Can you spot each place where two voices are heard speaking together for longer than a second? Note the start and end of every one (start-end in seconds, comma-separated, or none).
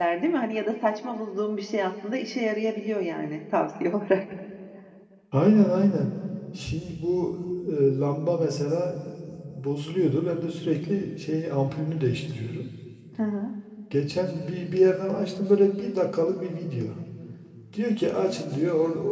none